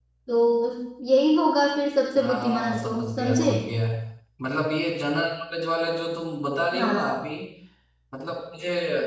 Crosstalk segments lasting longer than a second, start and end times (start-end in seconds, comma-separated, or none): 2.2-3.5